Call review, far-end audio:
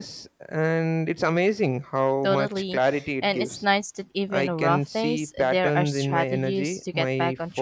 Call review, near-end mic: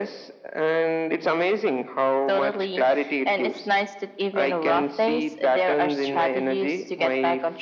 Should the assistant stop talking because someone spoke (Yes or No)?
No